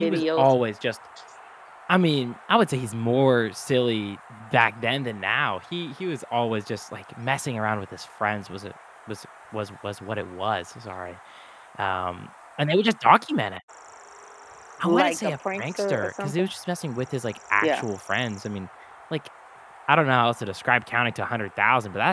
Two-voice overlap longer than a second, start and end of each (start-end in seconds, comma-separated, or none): 14.8-16.5